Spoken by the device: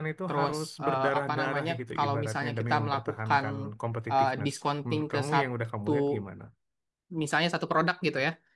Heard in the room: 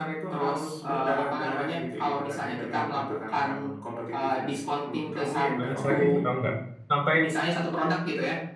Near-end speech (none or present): present